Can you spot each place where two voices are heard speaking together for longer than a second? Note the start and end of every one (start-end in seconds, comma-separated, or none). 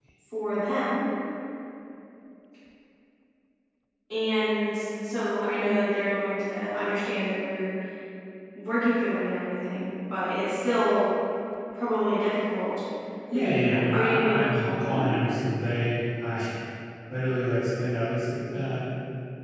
13.3-15.1